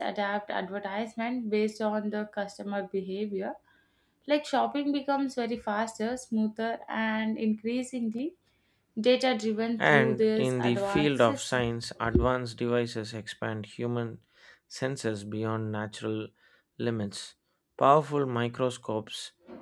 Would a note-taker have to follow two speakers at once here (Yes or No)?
Yes